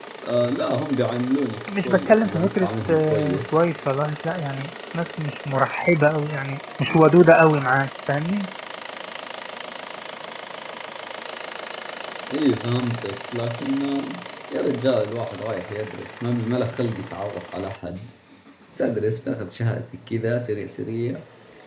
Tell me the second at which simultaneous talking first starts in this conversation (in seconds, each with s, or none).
1.7 s